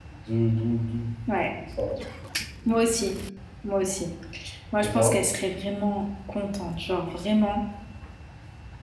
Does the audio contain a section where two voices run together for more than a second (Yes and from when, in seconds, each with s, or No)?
No